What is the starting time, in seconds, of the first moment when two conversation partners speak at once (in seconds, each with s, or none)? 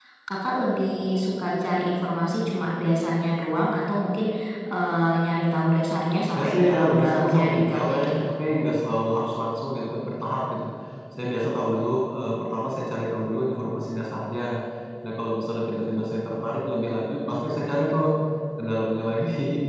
6.3 s